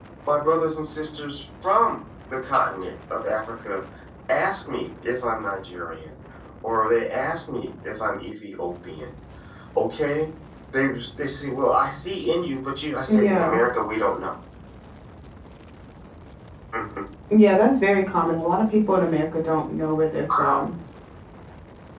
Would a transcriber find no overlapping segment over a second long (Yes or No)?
Yes